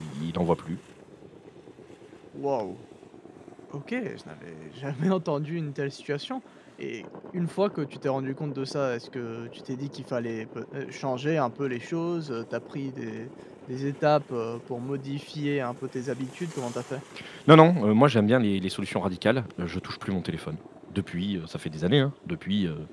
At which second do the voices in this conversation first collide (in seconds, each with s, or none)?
none